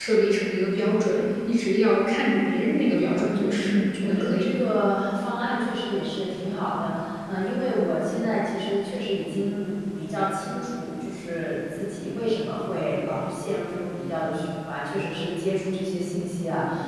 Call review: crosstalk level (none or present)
present